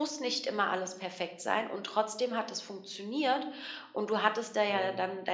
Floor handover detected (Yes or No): No